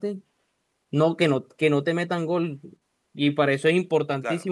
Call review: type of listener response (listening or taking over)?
listening